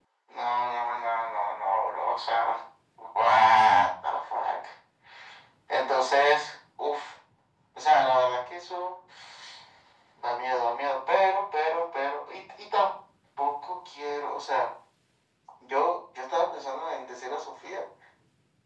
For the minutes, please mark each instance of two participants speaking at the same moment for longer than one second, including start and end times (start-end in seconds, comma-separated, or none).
none